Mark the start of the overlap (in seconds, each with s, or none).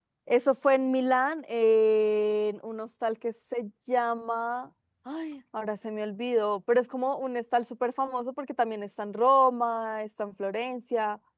none